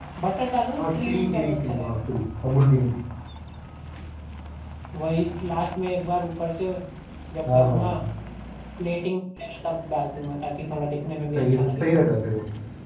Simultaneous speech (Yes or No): Yes